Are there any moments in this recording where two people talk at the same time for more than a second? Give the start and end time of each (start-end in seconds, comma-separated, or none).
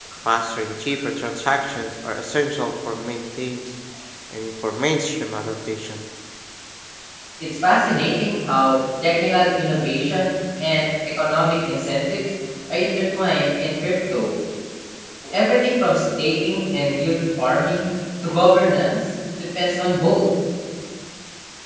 none